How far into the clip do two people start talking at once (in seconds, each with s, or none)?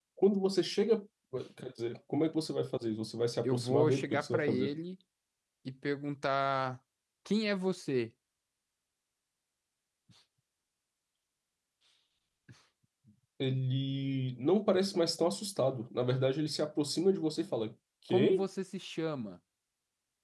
3.4 s